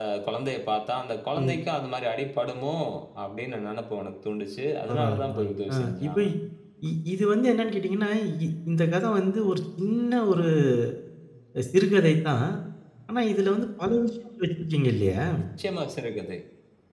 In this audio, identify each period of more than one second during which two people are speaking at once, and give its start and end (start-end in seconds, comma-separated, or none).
4.9-6.3